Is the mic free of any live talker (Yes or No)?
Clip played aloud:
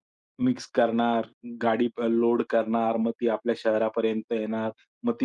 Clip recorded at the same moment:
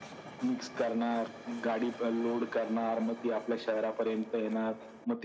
Yes